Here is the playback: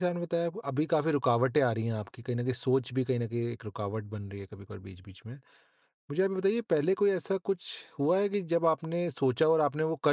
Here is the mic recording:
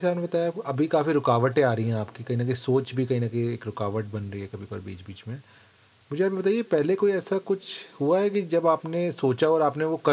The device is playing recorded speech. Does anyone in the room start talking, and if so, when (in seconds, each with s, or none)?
none